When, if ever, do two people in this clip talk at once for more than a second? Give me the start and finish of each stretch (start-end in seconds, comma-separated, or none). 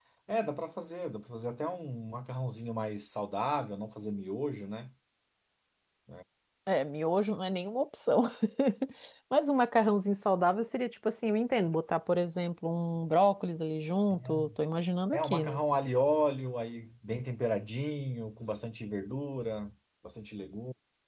none